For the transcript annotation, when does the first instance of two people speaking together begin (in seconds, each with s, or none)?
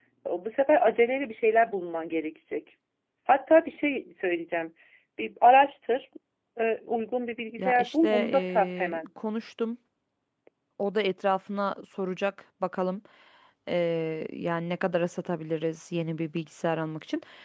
7.6 s